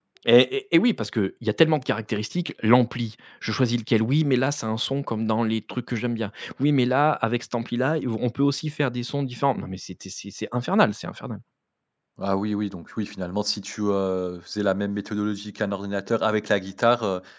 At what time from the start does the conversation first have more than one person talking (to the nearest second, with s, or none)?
none